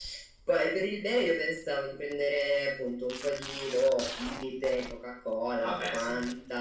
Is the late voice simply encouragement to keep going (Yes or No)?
Yes